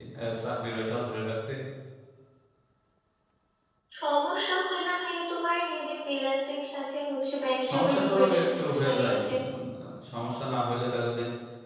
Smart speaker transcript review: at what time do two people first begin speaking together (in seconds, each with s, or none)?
7.6 s